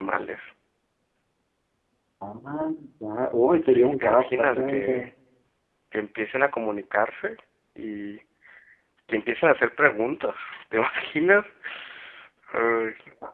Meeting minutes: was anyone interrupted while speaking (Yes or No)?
Yes